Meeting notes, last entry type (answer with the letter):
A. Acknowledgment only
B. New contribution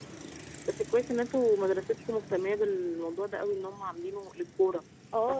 B